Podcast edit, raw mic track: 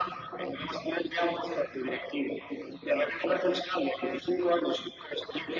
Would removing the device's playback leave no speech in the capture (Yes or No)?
Yes